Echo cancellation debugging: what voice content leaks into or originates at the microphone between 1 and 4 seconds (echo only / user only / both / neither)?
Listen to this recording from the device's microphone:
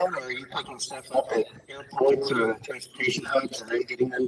echo only